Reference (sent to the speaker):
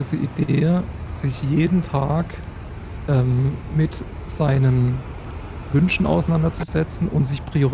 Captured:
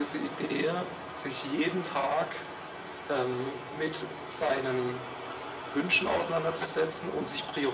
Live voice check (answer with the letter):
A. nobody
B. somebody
A